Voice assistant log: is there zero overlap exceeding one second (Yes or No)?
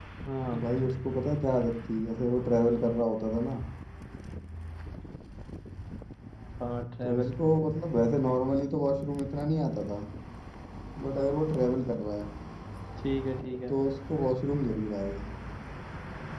Yes